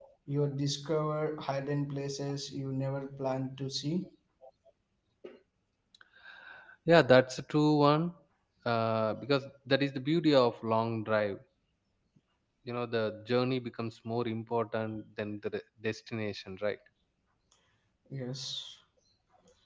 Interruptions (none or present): none